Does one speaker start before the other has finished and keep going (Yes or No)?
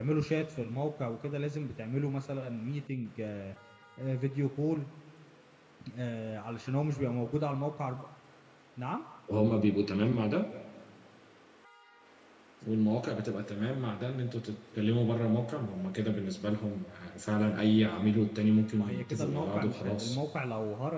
Yes